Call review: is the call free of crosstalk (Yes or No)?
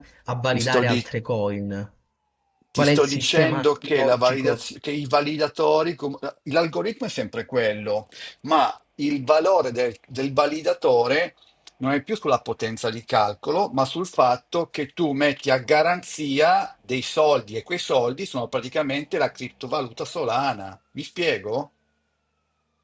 No